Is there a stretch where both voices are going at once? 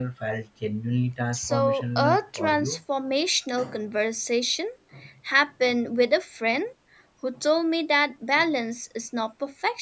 Yes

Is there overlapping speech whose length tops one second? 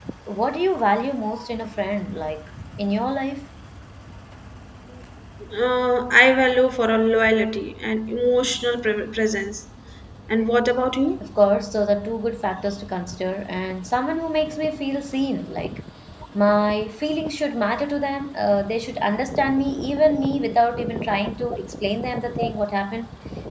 No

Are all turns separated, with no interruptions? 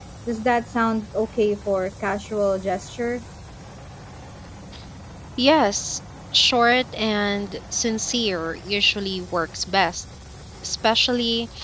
Yes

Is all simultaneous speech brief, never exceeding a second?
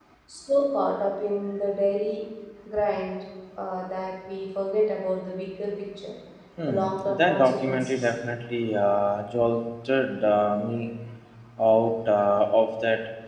No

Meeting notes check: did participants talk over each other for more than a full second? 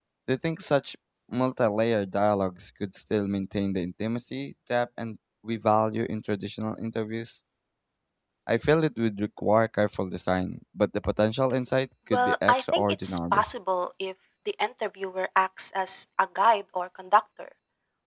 Yes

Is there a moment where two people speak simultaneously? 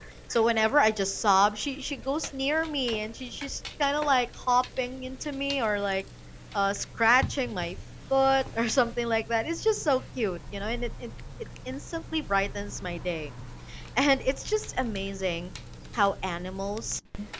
No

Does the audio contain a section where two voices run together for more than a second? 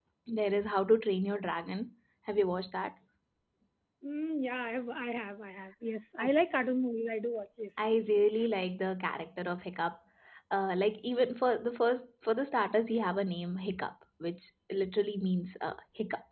No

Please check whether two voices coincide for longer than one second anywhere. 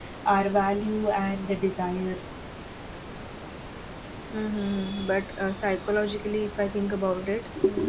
No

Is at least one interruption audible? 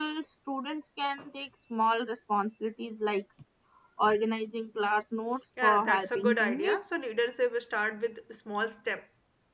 Yes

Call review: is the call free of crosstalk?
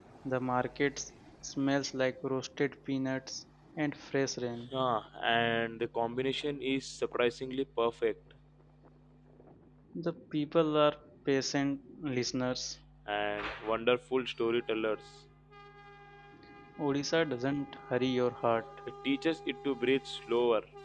Yes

